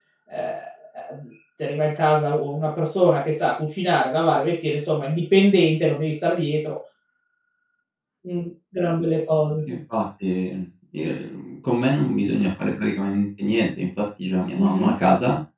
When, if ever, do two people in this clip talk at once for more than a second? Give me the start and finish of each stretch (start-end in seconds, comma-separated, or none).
none